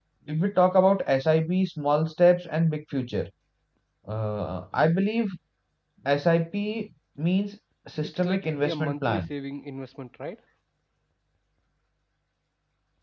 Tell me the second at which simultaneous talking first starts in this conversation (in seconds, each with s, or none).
8.0 s